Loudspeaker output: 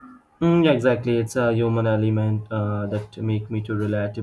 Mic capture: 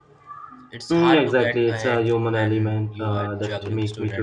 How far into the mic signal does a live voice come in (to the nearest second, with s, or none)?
1 s